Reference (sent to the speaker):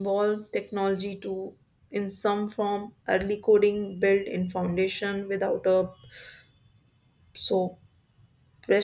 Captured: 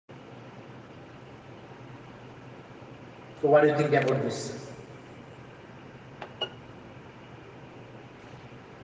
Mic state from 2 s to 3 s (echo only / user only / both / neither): neither